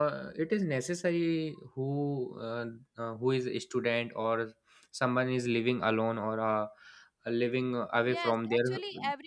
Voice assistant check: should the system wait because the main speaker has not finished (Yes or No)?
No